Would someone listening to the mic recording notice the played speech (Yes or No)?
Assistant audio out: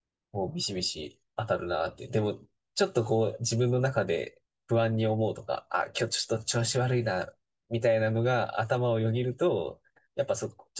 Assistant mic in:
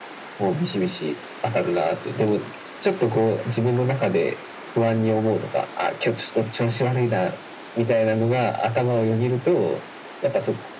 Yes